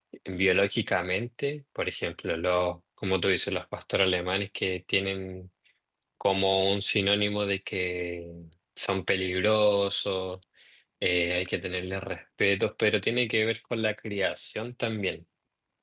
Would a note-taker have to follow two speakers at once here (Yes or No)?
No